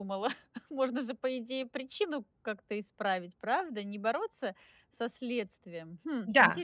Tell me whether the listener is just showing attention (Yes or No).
No